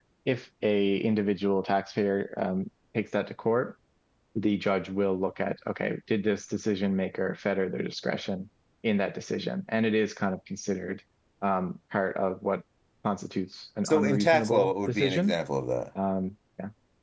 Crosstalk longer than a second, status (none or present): present